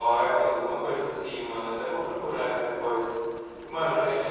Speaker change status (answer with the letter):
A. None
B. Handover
A